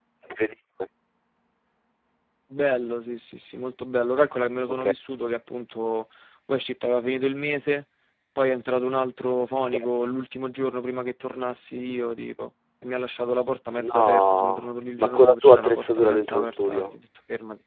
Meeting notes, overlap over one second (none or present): present